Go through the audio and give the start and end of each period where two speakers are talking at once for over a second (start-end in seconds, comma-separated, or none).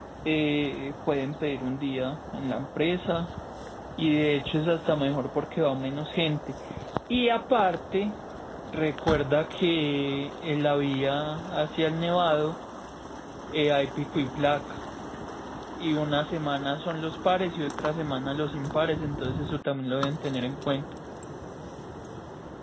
none